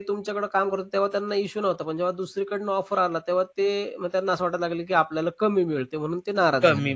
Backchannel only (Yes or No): No